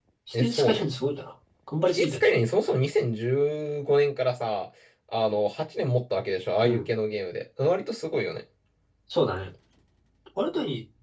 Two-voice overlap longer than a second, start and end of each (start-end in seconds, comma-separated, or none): none